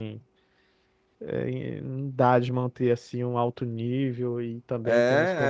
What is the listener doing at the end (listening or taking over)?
taking over